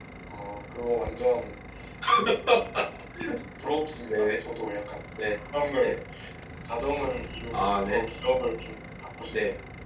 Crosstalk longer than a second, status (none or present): none